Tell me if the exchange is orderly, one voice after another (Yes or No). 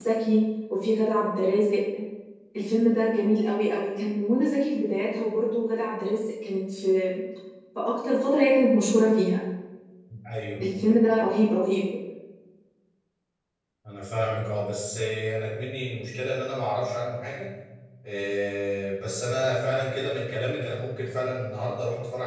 Yes